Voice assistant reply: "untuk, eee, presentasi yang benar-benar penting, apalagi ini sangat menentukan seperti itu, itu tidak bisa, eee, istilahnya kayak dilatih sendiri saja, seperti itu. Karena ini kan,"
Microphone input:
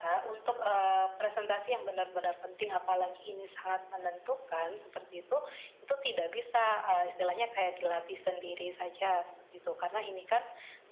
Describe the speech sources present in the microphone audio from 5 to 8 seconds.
echo only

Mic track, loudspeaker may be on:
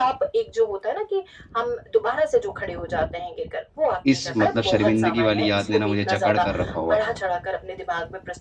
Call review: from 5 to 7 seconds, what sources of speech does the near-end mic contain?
both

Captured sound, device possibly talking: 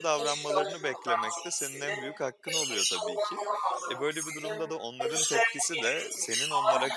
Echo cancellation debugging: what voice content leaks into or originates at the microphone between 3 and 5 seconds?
both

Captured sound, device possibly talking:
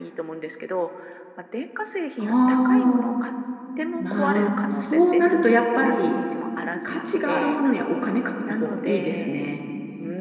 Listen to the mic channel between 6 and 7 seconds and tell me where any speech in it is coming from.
both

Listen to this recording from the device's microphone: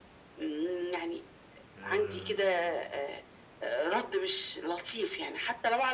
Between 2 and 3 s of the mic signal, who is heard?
both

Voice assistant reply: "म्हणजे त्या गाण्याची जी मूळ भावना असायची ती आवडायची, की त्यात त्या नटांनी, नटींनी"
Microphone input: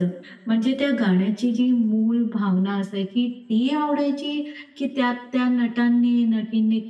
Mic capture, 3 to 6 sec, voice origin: echo only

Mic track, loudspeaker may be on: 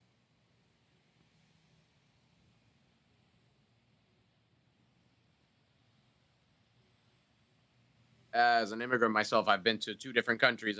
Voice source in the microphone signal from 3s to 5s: neither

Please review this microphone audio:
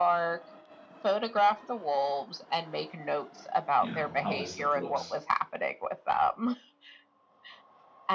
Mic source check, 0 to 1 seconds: echo only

